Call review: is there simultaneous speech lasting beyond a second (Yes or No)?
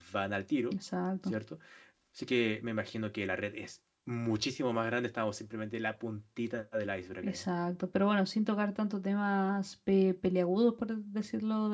No